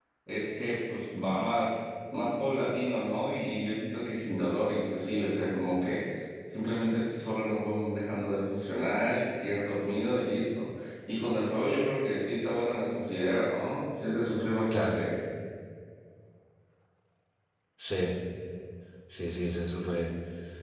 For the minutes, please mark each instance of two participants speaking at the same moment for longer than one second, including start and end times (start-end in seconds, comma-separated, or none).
none